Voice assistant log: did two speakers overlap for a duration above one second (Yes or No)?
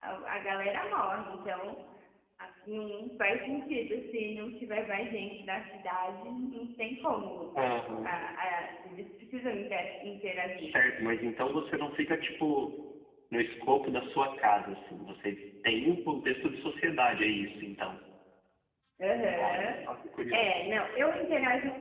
No